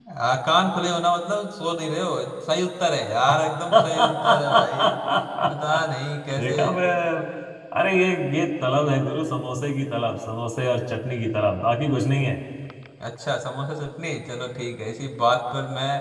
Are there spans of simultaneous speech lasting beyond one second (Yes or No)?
Yes